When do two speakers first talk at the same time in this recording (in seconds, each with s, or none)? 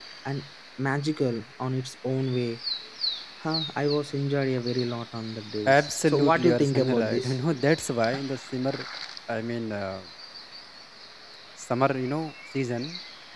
5.7 s